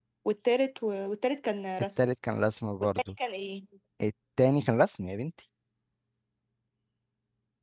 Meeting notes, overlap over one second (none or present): none